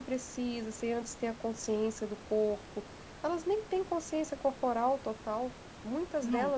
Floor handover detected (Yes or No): Yes